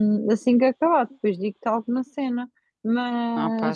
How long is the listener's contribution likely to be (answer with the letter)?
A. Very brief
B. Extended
A